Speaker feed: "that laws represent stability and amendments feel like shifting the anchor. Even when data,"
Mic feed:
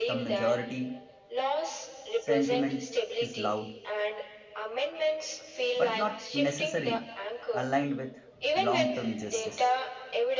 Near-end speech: present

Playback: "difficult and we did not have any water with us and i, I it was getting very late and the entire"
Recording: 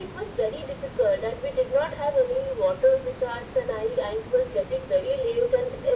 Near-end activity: none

